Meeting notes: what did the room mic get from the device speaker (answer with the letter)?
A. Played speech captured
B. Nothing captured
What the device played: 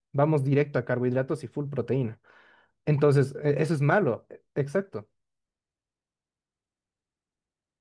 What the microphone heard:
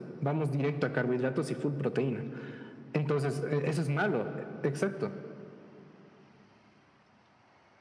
A